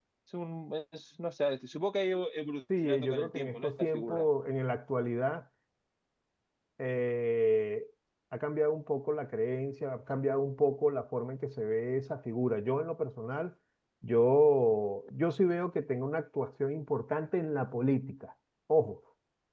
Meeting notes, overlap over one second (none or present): present